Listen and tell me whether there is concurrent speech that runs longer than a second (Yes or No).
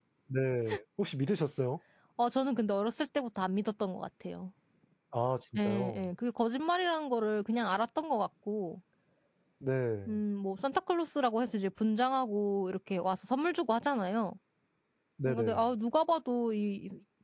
No